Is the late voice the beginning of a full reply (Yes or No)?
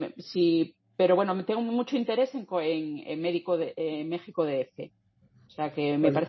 No